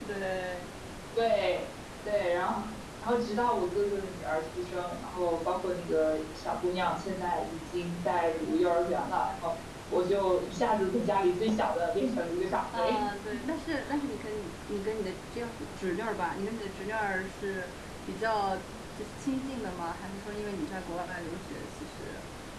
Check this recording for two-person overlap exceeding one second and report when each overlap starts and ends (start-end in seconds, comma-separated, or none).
none